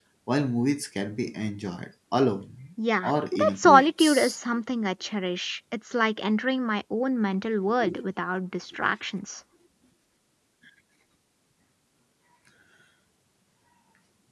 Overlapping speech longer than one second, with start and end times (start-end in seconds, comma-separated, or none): 3.0-4.4